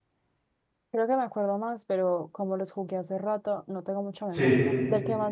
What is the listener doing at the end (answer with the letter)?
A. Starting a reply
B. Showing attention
B